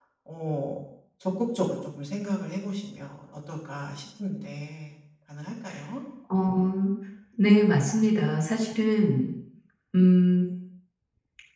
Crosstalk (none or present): none